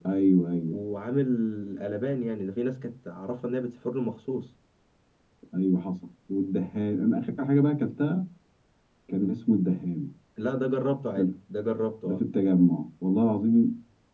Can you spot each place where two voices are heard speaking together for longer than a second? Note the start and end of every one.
none

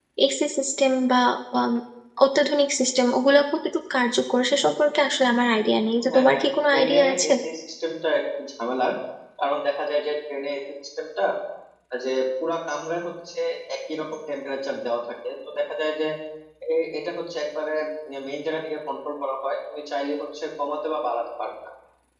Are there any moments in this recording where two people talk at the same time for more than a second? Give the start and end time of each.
6.1-7.3

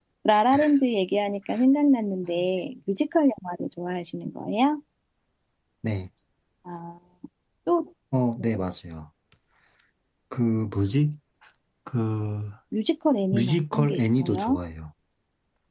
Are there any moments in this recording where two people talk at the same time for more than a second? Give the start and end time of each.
13.3-14.6

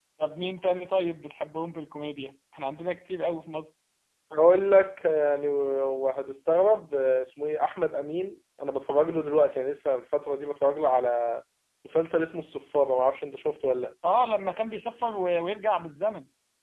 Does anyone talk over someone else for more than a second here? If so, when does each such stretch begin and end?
none

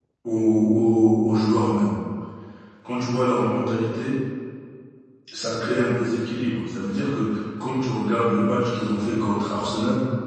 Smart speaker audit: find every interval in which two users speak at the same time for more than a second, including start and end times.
none

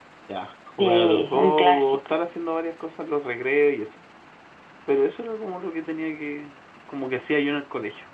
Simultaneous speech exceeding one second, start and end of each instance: 0.8-2.1

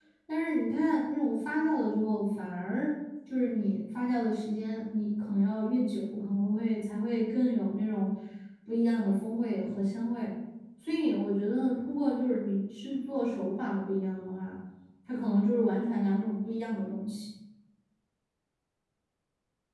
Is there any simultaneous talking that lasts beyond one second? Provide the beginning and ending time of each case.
none

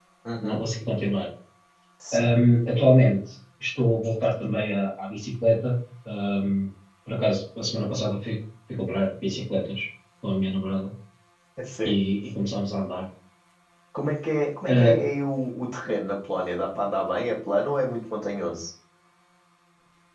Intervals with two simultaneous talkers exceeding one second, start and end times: none

